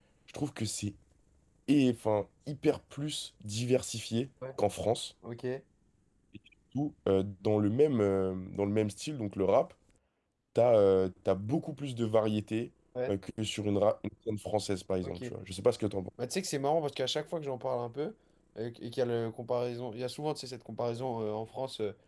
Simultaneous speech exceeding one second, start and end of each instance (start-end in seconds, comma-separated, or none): none